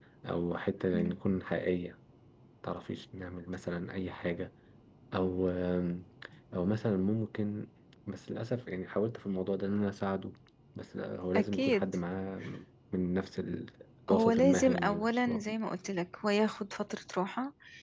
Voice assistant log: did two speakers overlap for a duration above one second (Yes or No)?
Yes